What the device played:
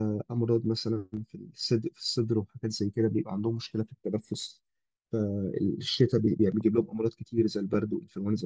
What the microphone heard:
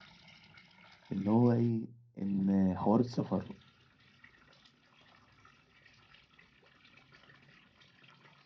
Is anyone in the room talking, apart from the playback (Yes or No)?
Yes